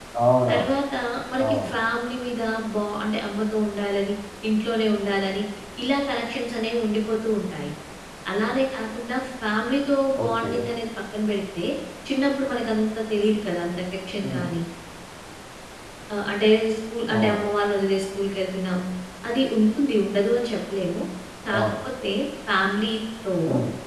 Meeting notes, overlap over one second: none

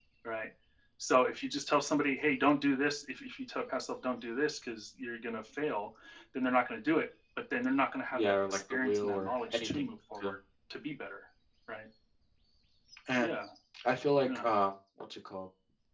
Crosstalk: present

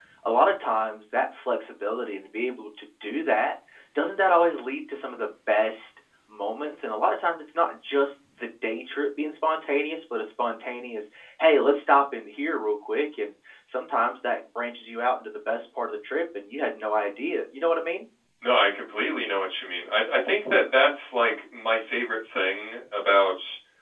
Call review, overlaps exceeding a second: none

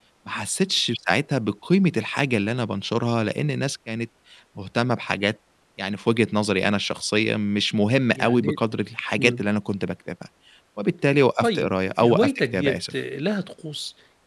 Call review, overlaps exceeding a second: present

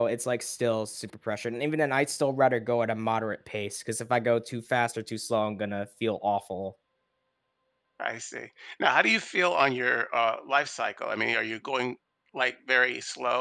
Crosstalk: none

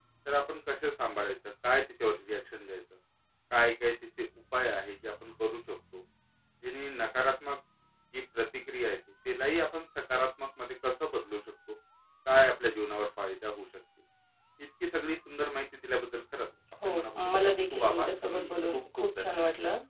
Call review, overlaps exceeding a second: present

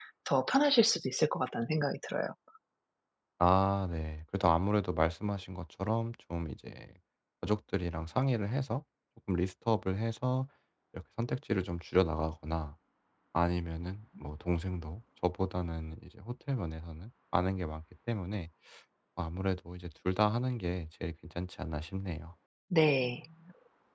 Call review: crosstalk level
none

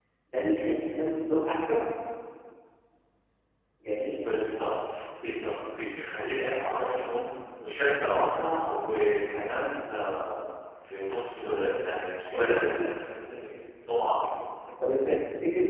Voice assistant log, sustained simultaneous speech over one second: none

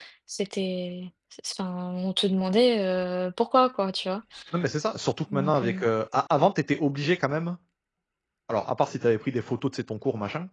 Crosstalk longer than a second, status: none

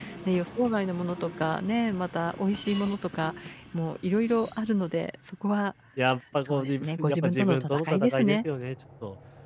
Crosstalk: present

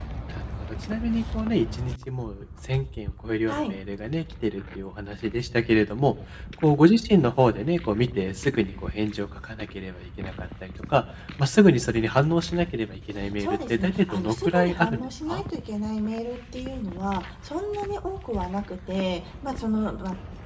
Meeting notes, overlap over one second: present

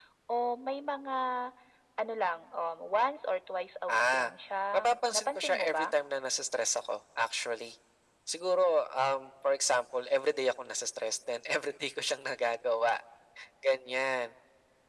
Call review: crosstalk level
present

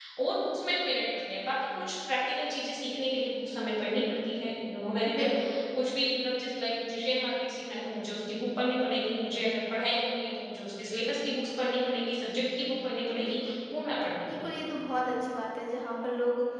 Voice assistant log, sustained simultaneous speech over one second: none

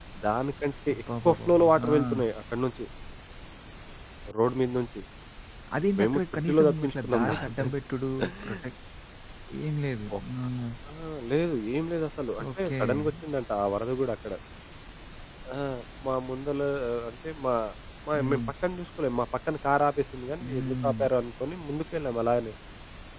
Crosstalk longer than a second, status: present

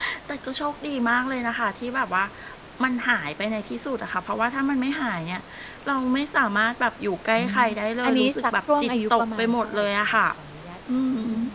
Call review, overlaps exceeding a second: present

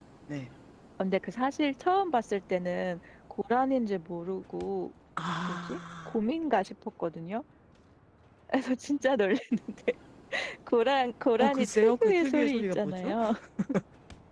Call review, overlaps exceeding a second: present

